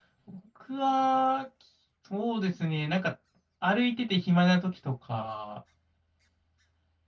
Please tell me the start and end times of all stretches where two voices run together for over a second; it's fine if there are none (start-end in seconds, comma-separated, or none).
none